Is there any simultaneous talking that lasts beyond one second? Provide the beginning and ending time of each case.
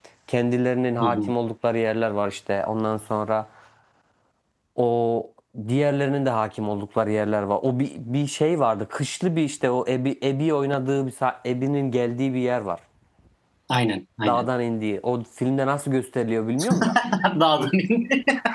none

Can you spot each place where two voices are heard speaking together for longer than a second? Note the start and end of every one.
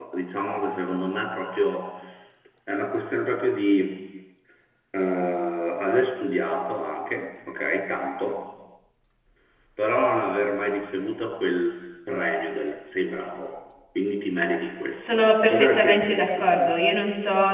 15.0-16.8

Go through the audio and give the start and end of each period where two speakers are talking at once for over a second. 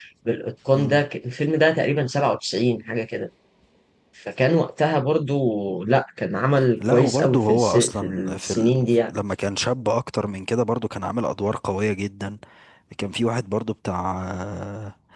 6.8-8.7

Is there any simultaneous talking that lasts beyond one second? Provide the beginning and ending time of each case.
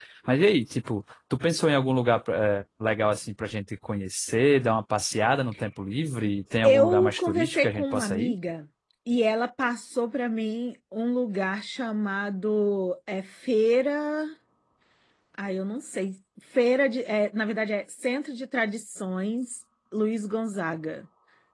6.6-8.3

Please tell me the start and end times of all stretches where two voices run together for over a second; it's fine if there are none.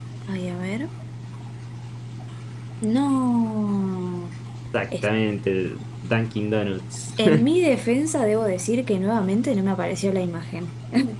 none

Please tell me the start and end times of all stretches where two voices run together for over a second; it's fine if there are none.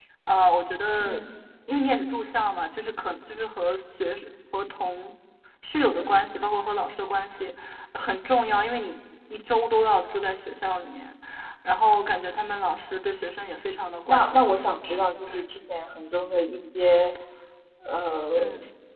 14.1-15.4

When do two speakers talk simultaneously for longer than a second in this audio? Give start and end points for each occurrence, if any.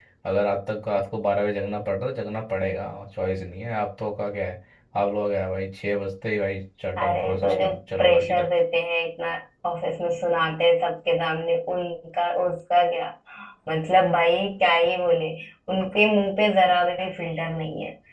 7.0-8.5

